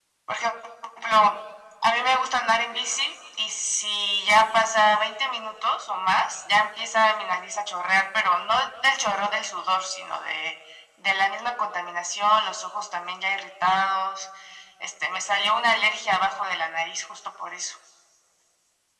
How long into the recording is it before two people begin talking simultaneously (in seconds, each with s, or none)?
2.0 s